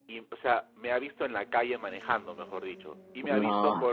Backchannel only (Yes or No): Yes